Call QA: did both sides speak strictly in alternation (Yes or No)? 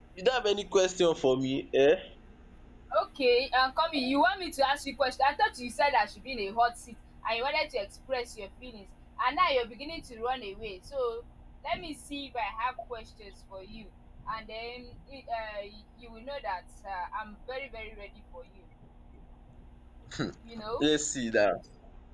Yes